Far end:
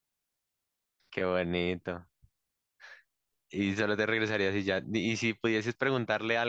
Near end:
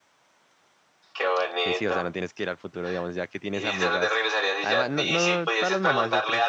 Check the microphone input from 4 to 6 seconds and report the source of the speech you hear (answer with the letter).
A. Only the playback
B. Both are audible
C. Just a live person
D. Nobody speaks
B